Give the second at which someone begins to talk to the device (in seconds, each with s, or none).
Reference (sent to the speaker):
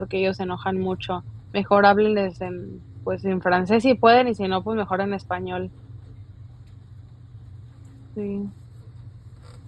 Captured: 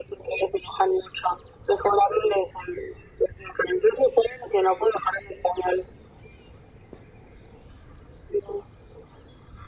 none